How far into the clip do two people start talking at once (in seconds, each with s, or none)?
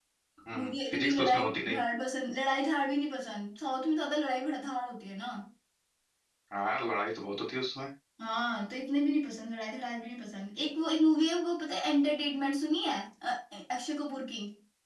0.5 s